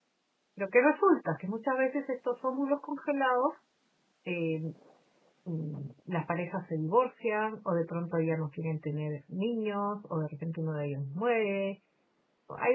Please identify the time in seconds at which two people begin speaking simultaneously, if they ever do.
none

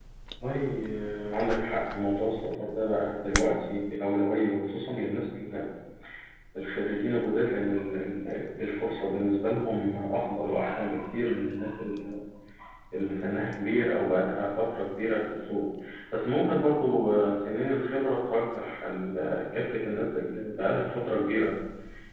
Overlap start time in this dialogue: none

